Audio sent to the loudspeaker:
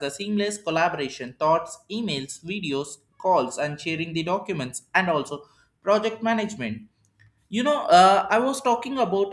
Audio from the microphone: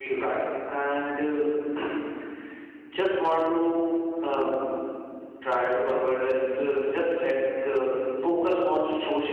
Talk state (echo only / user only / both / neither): user only